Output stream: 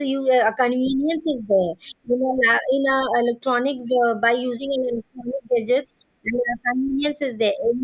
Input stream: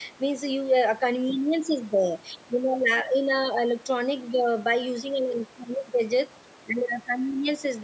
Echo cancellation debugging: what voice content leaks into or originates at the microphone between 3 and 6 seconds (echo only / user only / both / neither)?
echo only